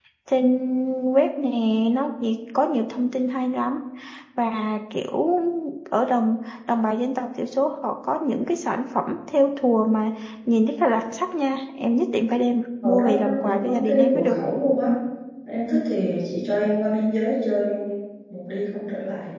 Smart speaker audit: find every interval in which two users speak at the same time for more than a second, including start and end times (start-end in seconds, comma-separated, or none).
12.8-14.3